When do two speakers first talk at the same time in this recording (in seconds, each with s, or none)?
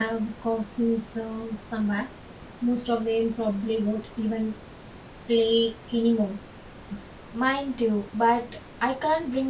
none